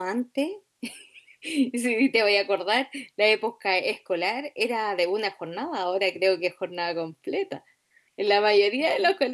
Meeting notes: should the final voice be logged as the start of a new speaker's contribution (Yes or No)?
No